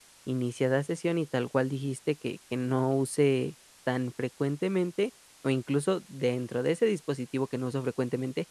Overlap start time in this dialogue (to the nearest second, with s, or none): none